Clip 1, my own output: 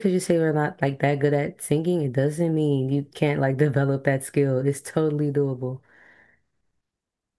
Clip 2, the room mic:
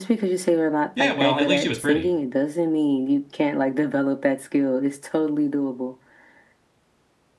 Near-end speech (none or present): present